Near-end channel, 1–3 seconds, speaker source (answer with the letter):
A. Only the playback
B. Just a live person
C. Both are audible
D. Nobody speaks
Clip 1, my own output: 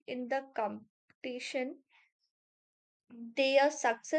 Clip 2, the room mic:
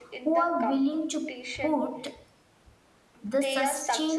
C